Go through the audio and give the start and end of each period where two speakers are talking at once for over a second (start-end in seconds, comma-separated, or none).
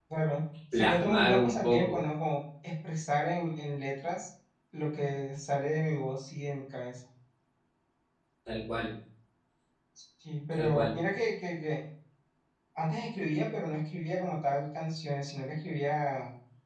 0.7-2.0